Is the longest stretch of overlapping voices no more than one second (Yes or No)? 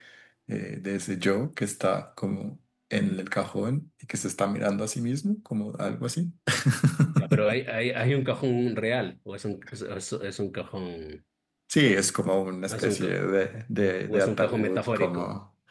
No